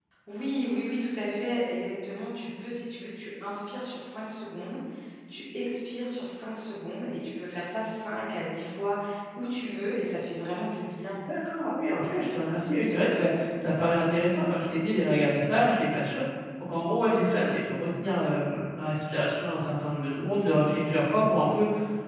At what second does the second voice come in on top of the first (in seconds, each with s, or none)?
none